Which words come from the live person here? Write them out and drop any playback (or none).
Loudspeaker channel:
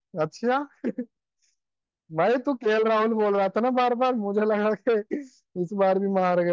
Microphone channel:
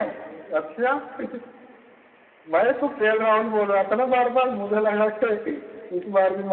none